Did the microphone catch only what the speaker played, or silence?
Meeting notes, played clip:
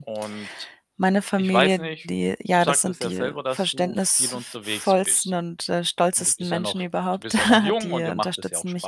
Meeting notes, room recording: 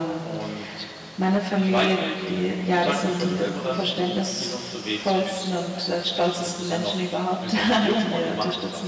No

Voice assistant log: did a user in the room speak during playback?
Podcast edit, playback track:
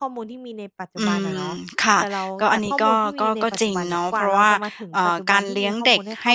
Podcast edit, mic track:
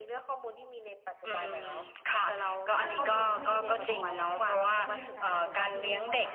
Yes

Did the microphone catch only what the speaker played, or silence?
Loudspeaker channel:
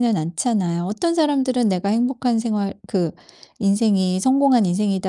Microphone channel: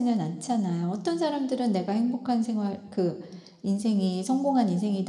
Yes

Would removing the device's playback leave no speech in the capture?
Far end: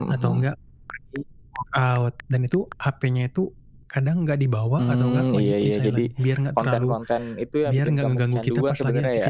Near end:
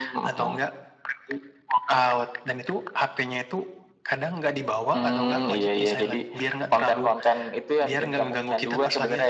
Yes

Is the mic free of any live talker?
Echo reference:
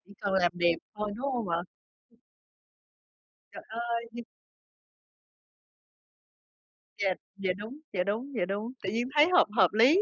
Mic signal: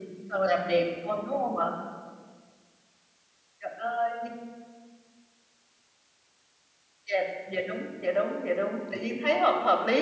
Yes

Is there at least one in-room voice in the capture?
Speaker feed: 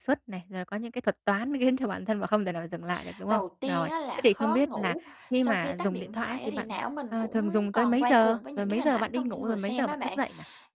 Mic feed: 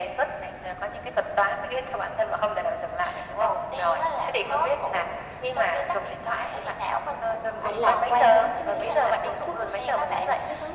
Yes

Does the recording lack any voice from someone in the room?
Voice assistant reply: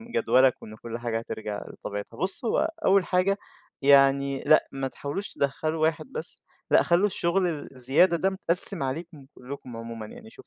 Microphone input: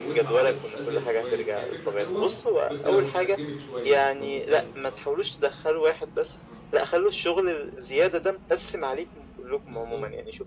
No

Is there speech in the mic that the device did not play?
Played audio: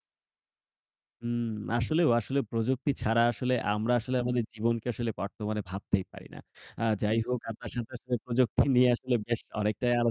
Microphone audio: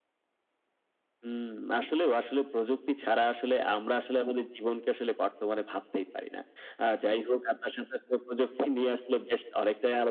No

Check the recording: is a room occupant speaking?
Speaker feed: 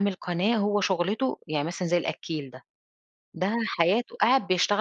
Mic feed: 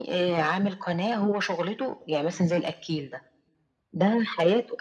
No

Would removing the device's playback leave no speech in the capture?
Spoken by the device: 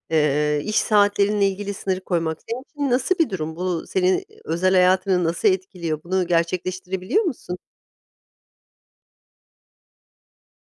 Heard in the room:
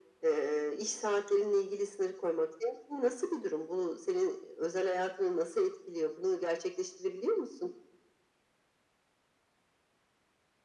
Yes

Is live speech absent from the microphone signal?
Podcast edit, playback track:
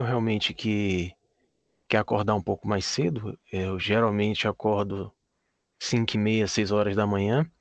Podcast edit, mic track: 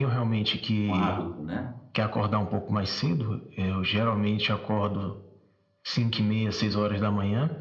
No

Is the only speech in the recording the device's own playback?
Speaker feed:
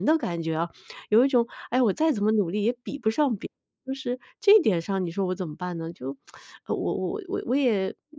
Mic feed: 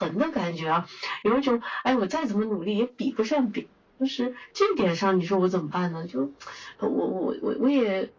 Yes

